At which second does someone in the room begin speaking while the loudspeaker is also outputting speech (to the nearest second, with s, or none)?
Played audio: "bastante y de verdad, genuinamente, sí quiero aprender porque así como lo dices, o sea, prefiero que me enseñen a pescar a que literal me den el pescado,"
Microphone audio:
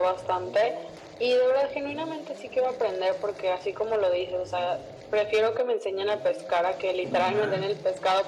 7 s